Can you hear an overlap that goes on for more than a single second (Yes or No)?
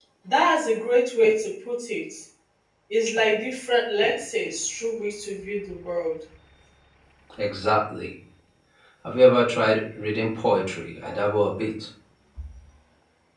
No